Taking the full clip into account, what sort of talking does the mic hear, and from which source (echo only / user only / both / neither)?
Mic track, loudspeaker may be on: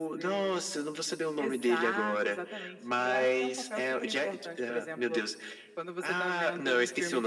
echo only